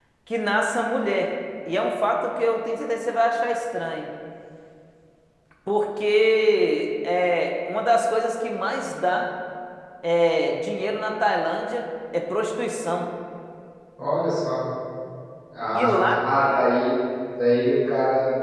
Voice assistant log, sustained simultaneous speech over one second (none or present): none